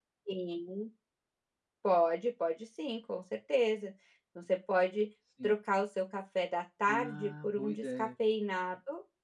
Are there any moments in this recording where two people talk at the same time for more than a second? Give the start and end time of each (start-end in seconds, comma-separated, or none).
6.9-8.1